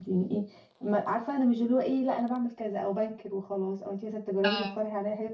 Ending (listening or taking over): listening